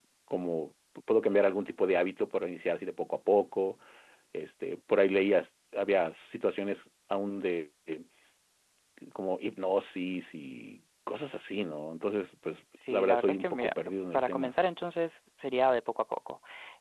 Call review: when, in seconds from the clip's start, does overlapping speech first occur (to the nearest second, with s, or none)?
13 s